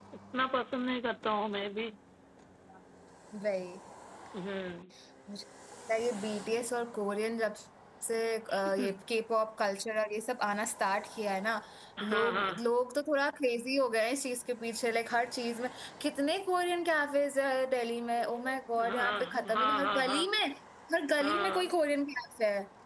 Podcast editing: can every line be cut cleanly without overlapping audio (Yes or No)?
No